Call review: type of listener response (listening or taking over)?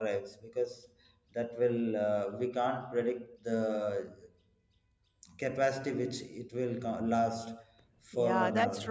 taking over